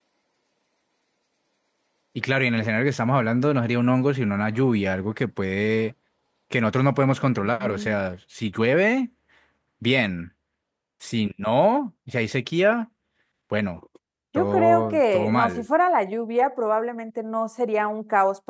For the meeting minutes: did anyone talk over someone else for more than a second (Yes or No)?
Yes